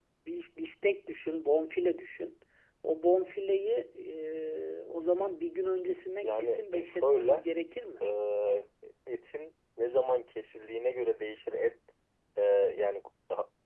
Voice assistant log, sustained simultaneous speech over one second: present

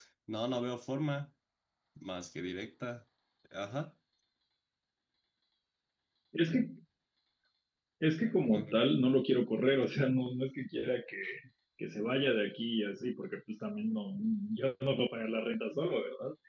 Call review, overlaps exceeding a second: none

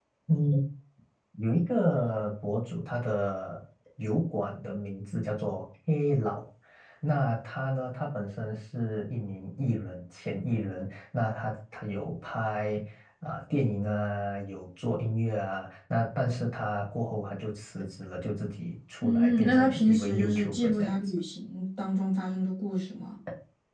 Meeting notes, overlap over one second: present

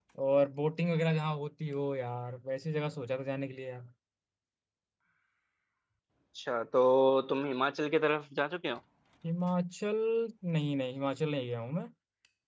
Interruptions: none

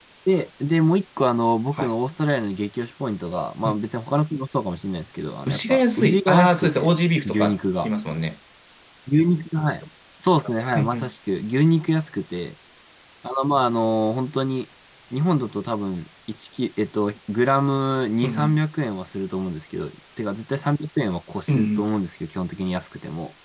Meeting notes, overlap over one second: present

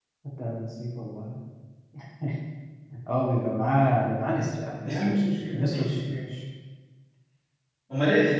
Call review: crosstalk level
present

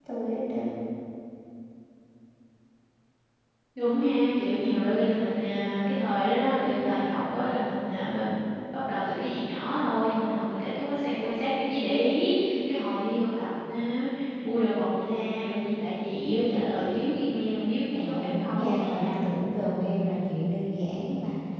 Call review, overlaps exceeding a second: present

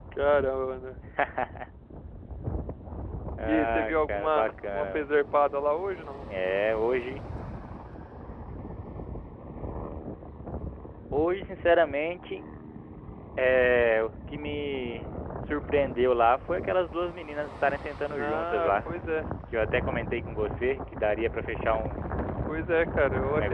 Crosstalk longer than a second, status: present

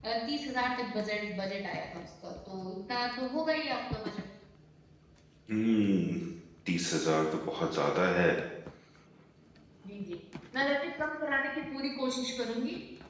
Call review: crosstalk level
none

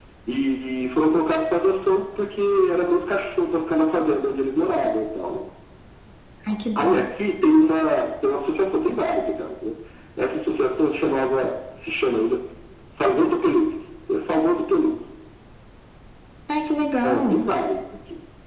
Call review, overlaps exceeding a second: none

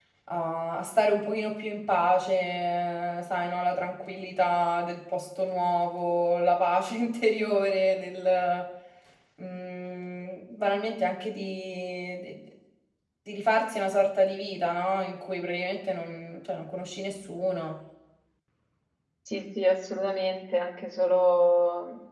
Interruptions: none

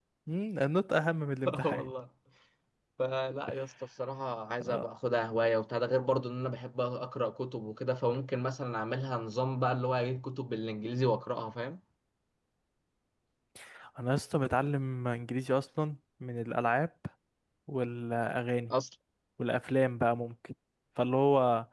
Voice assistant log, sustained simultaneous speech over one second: none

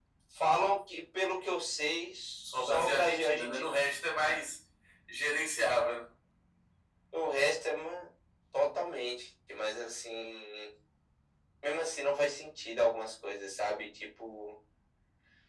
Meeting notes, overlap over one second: present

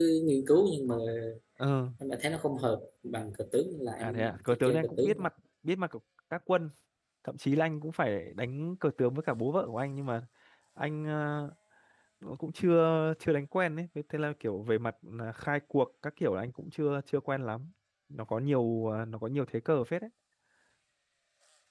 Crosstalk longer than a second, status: present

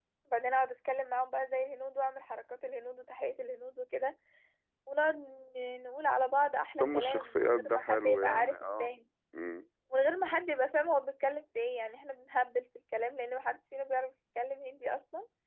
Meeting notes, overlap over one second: present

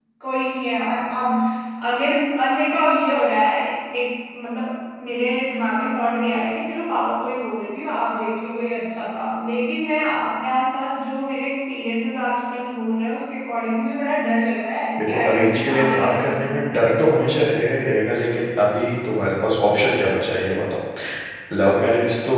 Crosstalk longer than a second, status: present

